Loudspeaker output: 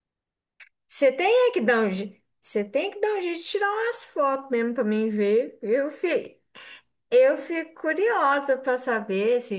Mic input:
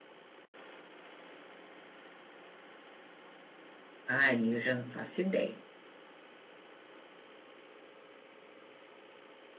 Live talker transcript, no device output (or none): Ai, eu já não faço ideia.